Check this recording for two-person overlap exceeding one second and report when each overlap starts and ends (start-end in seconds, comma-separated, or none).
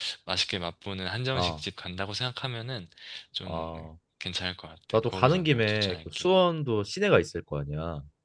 4.9-6.3